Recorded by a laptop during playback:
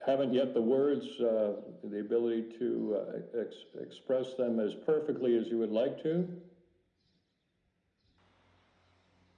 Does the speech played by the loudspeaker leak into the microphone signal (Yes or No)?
Yes